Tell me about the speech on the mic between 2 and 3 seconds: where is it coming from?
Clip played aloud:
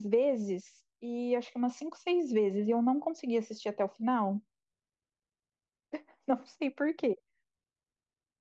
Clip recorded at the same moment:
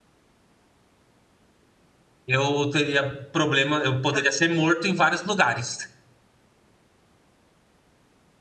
user only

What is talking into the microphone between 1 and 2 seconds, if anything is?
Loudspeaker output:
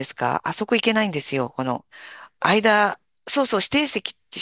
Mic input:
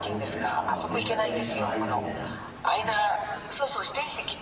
both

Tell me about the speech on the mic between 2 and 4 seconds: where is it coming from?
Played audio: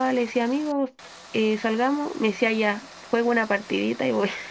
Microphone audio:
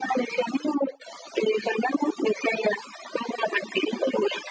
echo only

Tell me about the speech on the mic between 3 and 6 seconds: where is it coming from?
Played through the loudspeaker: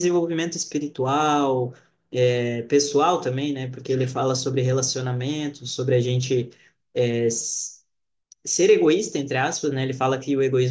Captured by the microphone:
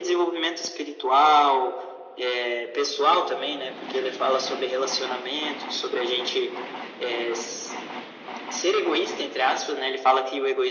echo only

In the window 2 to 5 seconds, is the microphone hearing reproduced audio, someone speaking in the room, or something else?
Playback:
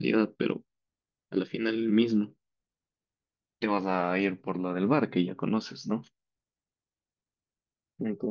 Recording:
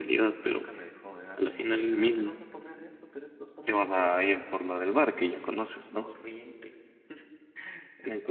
both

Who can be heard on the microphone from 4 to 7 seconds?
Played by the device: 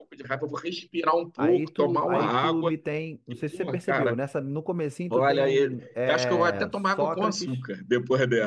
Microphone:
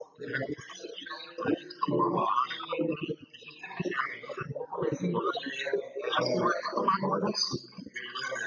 echo only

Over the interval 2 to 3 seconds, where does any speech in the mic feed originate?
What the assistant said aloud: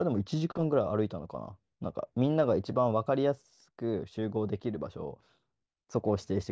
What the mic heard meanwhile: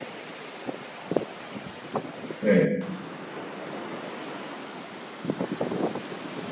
user only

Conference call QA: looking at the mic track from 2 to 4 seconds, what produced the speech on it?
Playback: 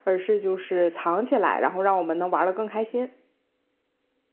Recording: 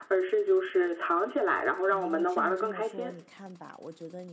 both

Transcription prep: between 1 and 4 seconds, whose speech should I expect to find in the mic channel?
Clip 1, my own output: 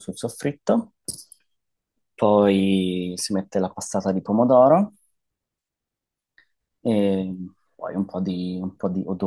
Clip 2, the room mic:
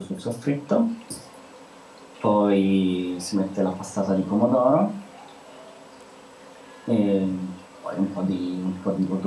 echo only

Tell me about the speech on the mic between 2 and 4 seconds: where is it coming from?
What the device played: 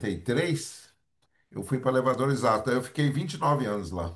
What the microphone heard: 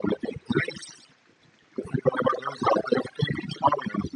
echo only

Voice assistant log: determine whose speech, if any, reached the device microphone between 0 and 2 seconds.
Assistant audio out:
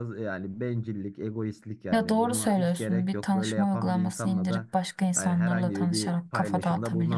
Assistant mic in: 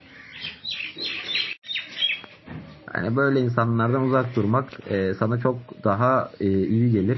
neither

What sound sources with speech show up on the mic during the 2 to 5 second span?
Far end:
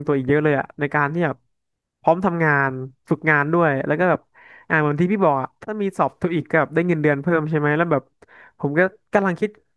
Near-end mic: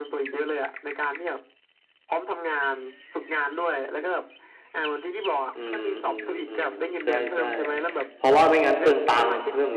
echo only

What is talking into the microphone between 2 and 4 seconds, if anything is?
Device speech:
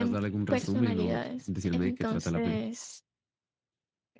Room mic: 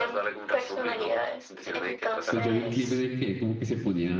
both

